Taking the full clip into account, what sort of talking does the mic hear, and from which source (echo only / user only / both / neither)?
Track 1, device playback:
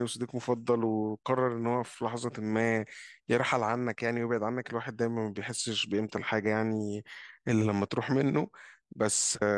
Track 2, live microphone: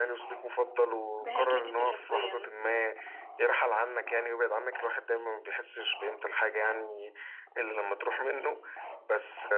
both